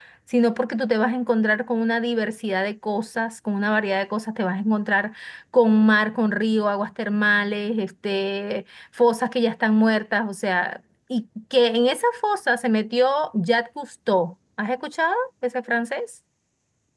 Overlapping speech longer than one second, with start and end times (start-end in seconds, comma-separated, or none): none